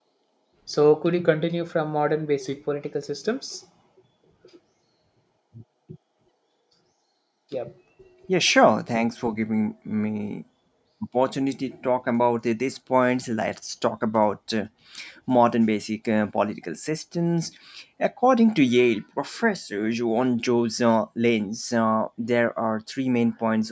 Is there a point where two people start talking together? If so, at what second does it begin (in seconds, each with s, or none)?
none